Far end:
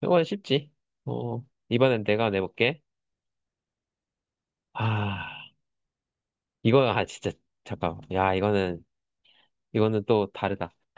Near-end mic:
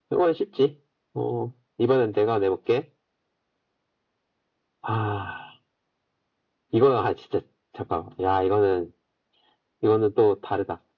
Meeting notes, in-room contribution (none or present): none